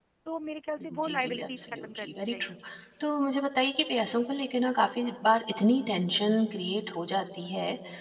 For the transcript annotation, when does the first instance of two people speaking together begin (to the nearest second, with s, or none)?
1 s